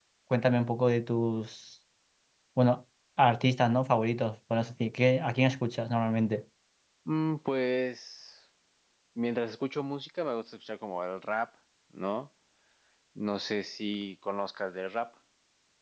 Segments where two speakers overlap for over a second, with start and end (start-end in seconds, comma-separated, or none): none